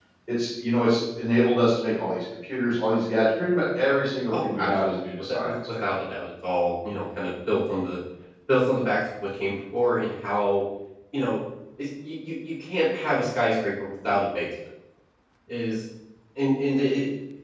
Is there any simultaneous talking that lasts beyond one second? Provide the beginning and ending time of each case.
4.3-5.8

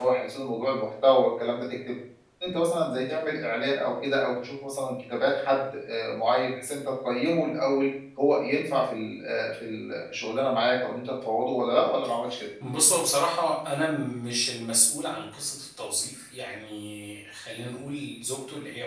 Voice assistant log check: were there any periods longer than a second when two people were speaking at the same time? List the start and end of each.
none

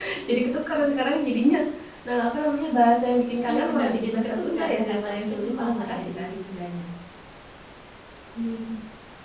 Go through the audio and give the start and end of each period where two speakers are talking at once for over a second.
3.5-6.3

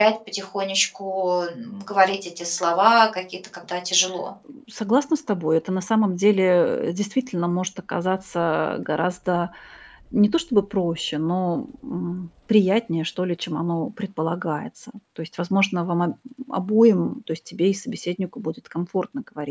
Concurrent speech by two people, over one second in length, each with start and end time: none

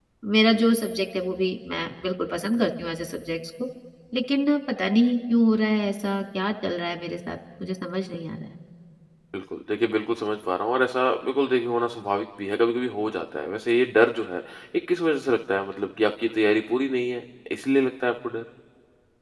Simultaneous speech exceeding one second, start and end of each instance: none

